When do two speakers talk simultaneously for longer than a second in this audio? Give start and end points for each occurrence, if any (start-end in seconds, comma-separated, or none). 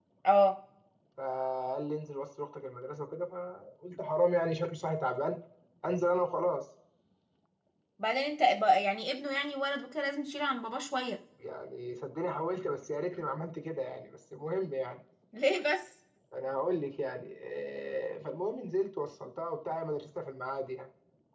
none